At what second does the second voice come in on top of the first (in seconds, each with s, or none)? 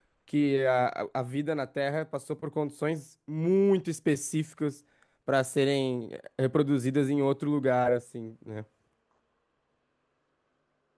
none